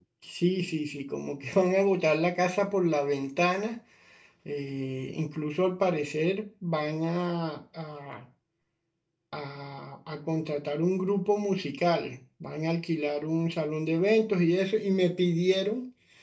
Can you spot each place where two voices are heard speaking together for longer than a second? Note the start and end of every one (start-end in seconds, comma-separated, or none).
none